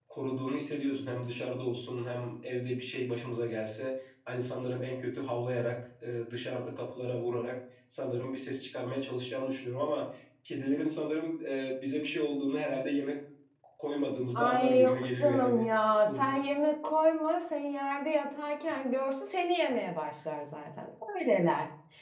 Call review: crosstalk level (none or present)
present